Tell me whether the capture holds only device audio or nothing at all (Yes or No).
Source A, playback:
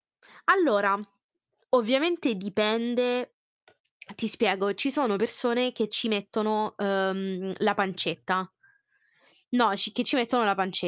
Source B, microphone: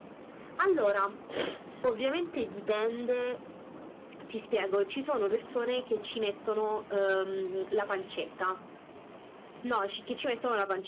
Yes